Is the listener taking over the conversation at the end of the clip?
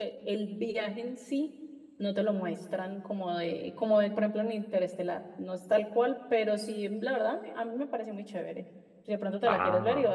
No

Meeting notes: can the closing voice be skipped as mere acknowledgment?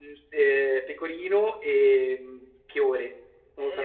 No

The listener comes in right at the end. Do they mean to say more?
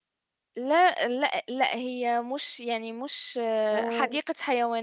No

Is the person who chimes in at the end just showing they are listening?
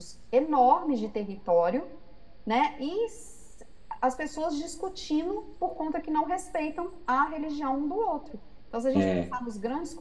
Yes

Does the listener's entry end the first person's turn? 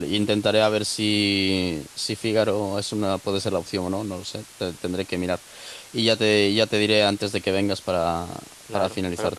Yes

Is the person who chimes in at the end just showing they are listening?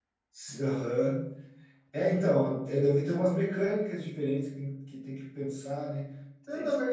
Yes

